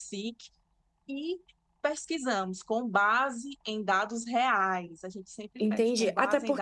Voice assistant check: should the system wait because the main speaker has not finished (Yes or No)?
No